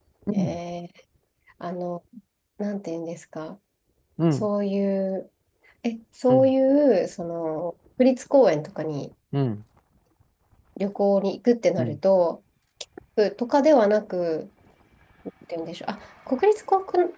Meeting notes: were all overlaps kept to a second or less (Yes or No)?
Yes